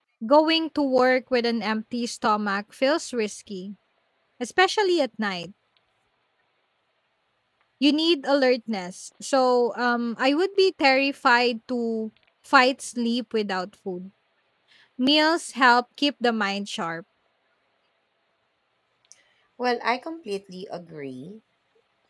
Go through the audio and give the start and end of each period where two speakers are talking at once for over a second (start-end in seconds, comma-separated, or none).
none